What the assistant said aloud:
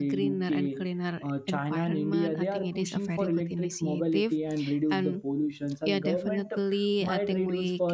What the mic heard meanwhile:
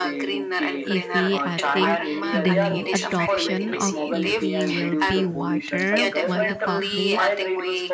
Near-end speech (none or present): present